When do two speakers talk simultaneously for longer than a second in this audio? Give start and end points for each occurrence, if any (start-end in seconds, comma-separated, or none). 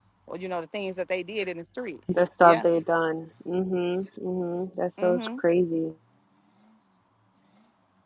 none